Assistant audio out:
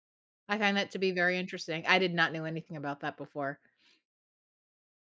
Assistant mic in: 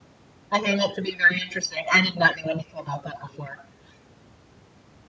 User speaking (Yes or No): No